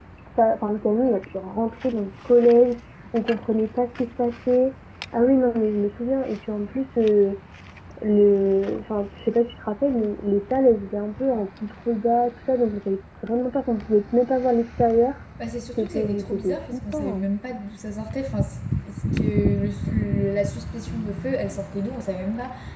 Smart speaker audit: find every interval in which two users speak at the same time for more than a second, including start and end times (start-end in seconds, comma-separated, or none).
15.8-17.2